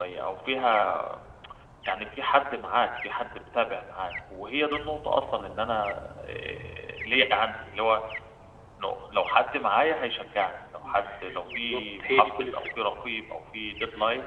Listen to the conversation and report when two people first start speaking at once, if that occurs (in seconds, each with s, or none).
11.3 s